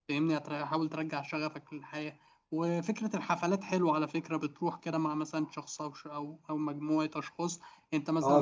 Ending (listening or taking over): taking over